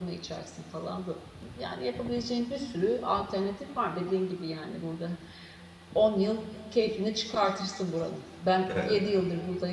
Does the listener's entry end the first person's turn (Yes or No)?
No